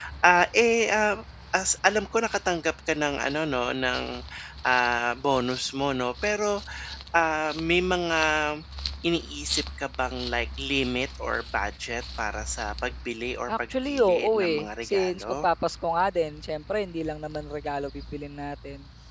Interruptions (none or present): present